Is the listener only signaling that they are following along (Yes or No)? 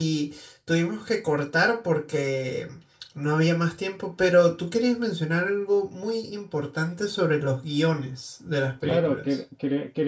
No